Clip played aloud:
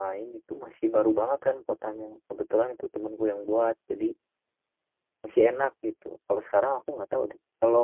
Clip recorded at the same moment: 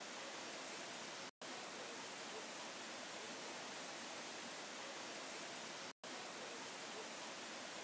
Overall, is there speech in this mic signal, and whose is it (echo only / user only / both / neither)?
neither